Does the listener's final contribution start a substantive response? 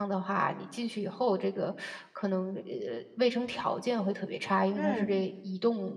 No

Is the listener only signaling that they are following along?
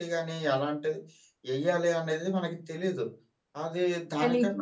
Yes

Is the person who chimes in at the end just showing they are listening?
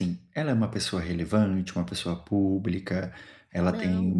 Yes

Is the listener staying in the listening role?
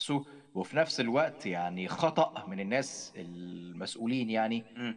Yes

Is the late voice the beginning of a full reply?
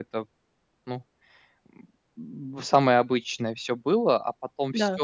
No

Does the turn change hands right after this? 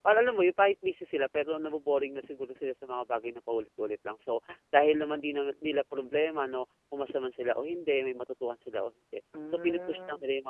No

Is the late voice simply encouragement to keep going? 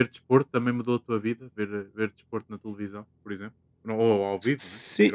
No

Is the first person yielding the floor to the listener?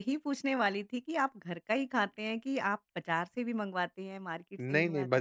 Yes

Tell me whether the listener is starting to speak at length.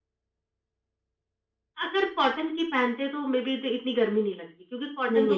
No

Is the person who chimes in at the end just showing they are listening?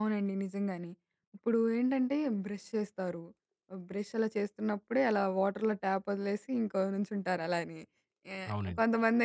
Yes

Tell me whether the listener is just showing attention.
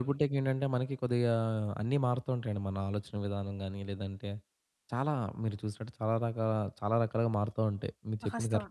No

